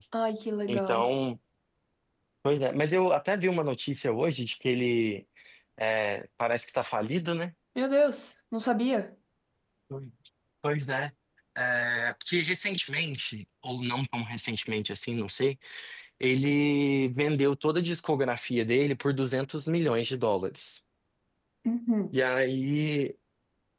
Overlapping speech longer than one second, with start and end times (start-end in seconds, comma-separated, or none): none